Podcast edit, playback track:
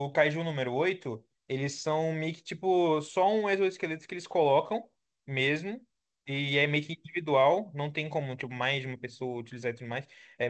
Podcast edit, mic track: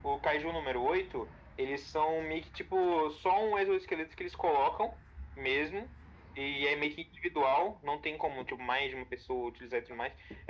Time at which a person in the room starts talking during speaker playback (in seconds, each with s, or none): none